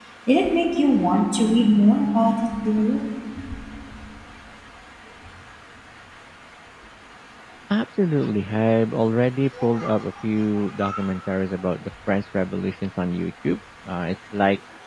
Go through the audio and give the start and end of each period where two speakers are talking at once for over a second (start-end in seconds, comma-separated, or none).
none